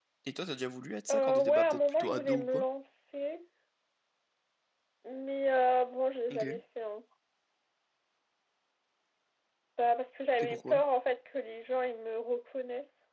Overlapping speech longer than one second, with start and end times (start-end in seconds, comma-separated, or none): 1.1-2.6